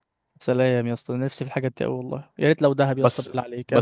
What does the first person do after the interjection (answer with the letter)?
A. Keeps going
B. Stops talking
B